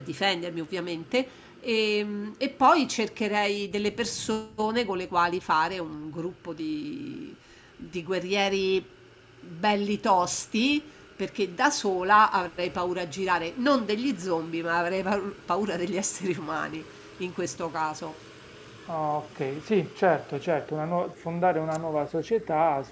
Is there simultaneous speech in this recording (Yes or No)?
No